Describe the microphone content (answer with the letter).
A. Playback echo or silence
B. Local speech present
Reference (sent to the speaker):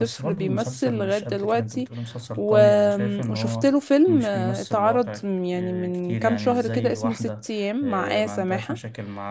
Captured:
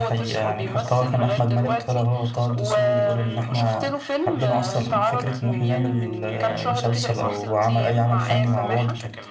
B